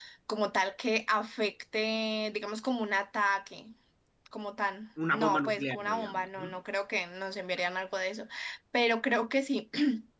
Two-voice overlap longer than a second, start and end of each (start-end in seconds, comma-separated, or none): 5.1-6.6